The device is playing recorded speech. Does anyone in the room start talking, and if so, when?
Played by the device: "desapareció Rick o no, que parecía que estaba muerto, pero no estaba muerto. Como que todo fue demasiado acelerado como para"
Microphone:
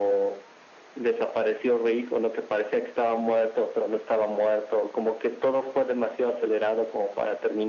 none

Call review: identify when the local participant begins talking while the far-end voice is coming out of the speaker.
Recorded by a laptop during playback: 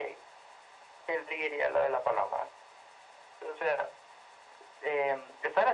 none

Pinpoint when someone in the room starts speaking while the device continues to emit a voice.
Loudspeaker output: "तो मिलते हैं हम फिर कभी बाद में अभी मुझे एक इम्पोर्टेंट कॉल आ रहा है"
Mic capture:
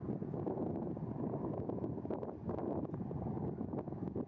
none

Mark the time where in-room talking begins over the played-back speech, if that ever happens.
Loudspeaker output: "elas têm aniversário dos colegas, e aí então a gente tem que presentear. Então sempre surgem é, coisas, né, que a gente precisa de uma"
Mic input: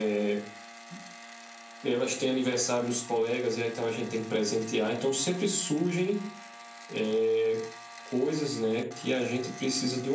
none

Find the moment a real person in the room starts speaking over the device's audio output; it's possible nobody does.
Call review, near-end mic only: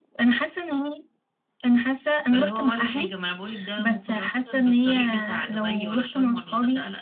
2.3 s

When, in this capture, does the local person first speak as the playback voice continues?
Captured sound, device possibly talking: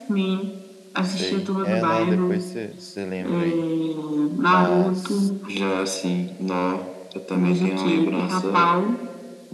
1.0 s

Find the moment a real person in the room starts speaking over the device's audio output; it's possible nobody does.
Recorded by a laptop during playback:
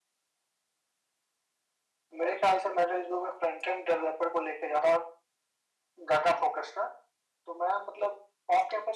none

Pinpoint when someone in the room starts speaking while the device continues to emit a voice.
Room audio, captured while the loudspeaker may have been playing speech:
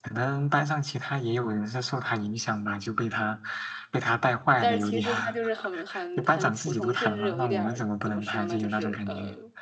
4.6 s

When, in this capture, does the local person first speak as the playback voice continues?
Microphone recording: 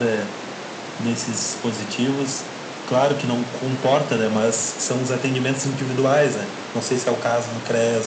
none

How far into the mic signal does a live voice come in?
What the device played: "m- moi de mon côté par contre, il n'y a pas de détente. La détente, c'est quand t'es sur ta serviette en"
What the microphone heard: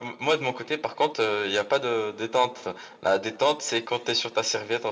none

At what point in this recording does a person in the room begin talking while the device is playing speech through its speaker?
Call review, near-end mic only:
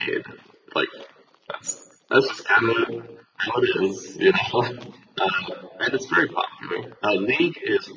none

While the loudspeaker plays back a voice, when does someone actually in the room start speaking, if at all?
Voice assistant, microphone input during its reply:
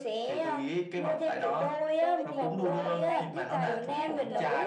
2.0 s

